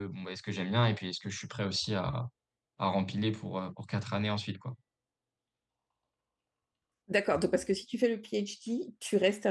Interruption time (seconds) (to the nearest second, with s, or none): none